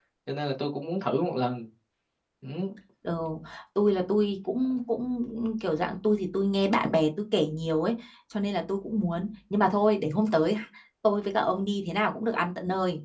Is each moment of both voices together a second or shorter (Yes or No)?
Yes